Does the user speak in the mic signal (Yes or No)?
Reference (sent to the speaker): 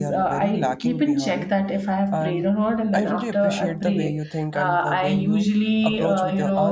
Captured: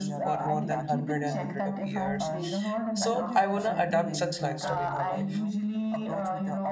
Yes